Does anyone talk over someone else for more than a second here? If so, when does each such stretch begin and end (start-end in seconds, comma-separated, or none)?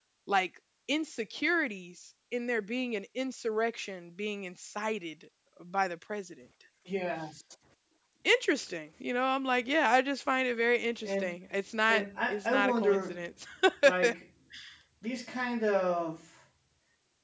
11.9-13.2